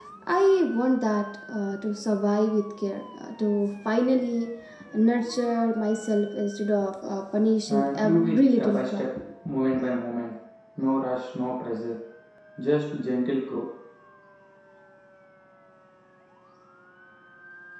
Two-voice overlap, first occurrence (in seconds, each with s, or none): 7.7 s